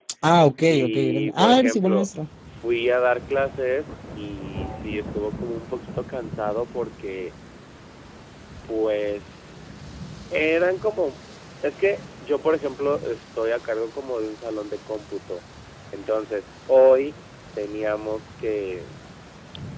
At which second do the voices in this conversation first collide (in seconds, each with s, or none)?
0.7 s